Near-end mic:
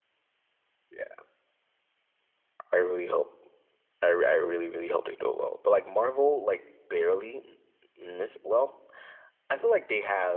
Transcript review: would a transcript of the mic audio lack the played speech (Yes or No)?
Yes